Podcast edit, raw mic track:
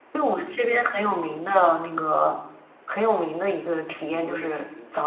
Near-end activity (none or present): present